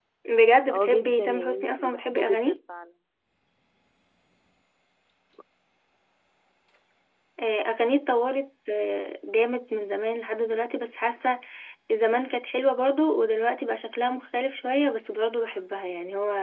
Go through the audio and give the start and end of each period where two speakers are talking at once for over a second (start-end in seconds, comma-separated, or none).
0.7-2.6